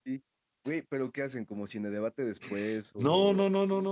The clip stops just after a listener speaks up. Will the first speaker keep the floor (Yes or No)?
No